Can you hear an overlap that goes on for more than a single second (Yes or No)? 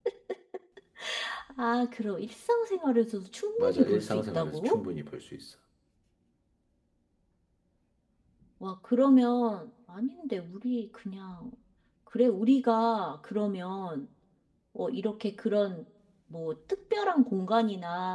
Yes